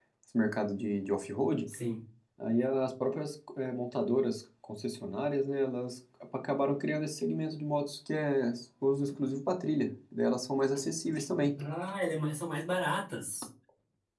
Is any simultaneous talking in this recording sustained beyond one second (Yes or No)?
No